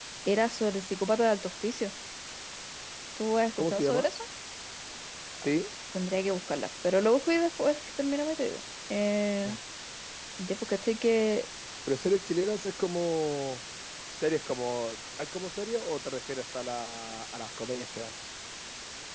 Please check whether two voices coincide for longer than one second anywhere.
No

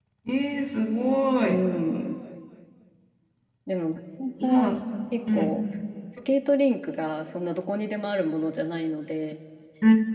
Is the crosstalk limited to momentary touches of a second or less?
Yes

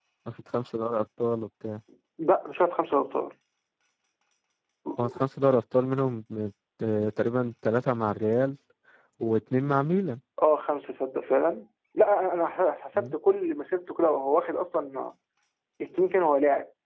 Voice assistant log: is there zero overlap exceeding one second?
Yes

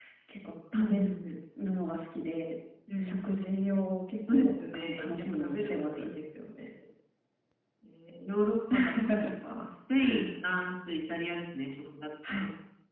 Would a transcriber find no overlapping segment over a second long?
No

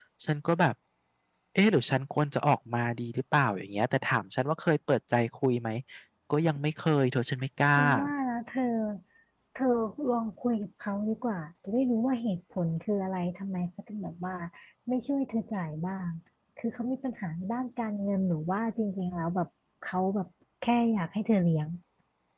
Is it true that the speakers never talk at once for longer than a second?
Yes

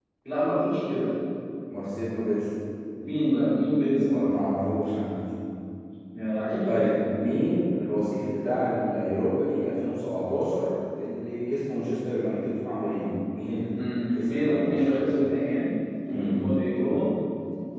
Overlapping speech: Yes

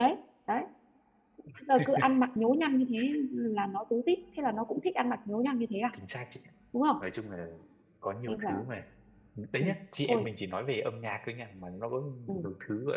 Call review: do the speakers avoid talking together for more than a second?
Yes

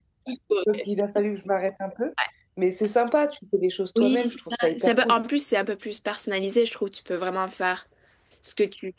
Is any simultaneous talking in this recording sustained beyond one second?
Yes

